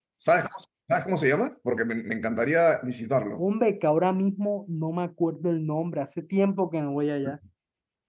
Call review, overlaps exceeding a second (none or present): none